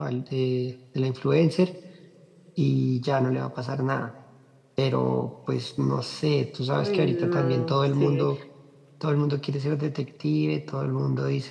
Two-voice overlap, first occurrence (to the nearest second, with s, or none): 7 s